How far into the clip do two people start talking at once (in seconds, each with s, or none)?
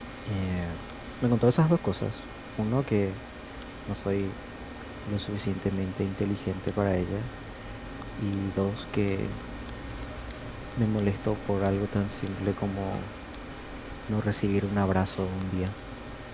none